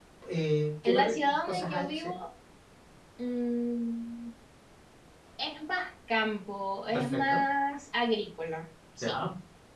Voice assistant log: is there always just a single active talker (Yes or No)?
No